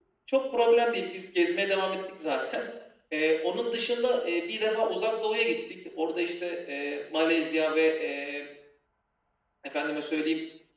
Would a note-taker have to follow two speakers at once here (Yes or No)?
No